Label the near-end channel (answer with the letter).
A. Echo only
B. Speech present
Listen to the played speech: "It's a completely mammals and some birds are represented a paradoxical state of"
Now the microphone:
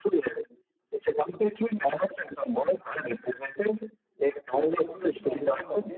B